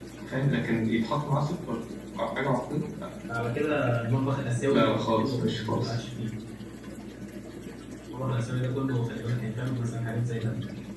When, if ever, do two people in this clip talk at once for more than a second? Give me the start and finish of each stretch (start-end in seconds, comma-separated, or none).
4.7-6.0